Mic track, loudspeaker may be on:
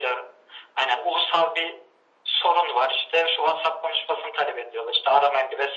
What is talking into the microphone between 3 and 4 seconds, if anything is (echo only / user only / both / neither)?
echo only